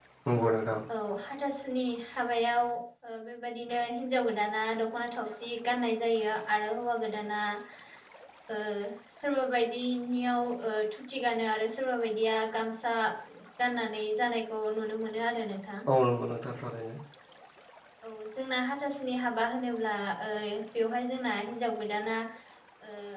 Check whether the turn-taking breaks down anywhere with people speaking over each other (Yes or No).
No